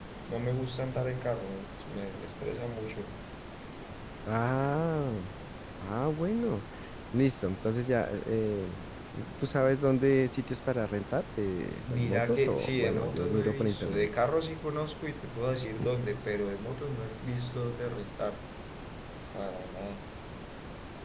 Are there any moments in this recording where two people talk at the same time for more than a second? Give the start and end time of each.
11.9-14.1

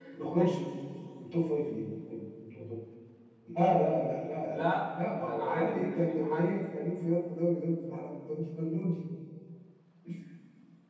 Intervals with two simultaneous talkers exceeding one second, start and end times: 5.3-6.6

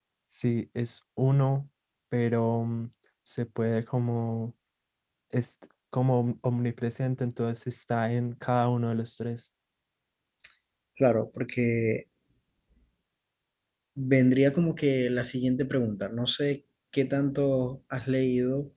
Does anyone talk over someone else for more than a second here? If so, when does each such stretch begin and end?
none

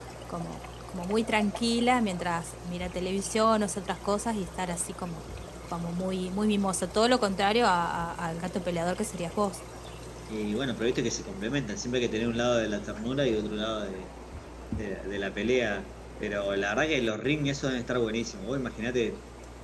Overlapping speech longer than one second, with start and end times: none

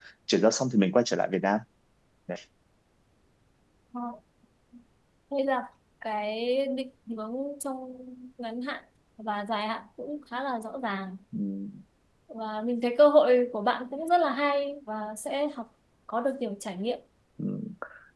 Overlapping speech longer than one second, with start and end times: none

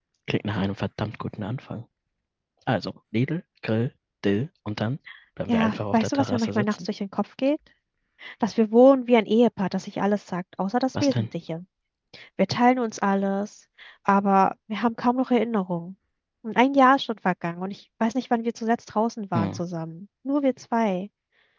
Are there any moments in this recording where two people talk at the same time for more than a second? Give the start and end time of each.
5.5-6.9

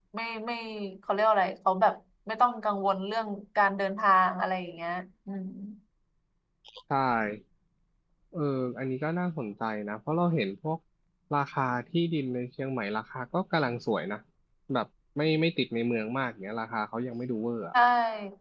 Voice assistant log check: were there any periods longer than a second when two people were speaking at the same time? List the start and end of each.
none

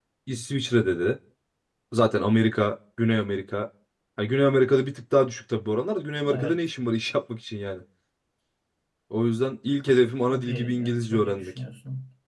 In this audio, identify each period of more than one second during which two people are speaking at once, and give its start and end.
10.2-11.6

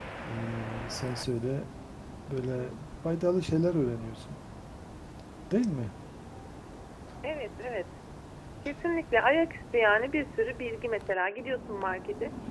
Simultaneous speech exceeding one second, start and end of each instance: none

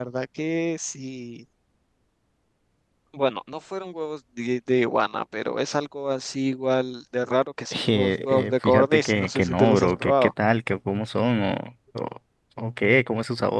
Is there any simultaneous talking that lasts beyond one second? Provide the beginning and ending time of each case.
7.7-10.3

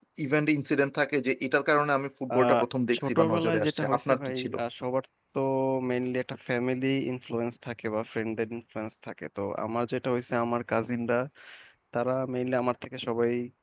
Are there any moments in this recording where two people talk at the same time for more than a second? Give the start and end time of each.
3.0-4.5

